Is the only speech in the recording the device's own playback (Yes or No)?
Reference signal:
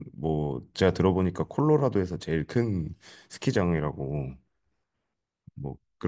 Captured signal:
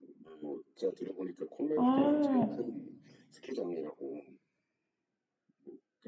No